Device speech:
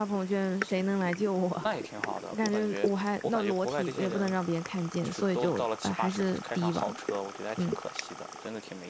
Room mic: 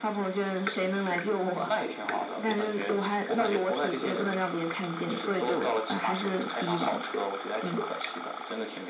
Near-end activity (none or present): none